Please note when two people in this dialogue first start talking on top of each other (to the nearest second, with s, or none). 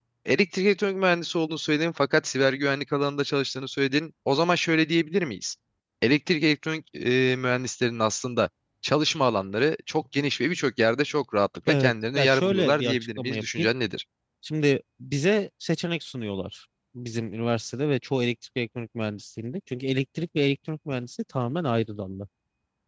12 s